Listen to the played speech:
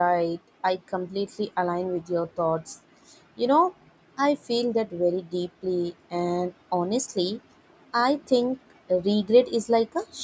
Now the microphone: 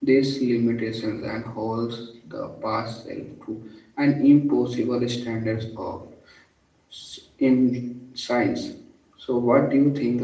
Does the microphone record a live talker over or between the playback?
Yes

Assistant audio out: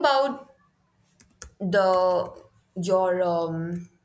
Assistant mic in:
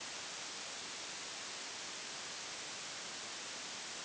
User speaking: No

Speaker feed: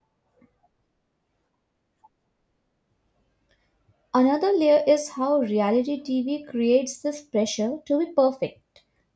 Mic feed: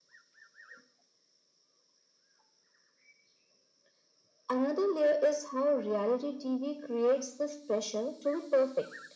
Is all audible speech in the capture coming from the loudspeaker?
Yes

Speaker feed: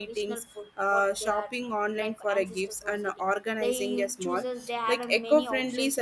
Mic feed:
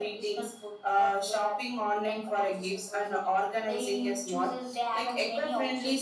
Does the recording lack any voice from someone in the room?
Yes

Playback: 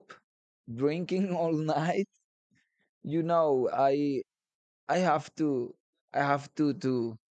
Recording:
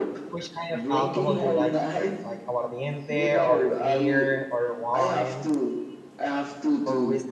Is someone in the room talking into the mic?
Yes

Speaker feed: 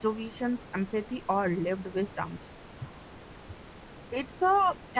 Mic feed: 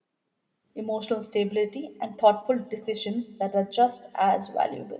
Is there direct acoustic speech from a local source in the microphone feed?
Yes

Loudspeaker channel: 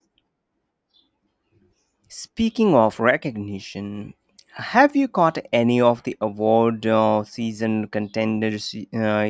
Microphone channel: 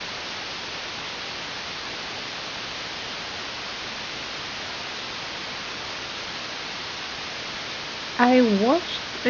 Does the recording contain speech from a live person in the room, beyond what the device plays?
Yes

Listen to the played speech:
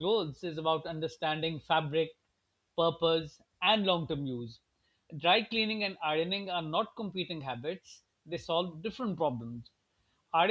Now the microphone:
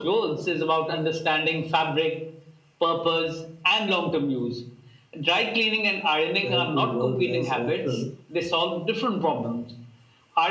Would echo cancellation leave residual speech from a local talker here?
Yes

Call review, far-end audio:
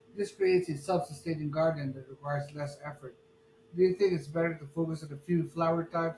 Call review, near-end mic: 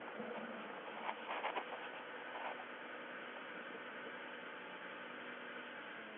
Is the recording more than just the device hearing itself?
No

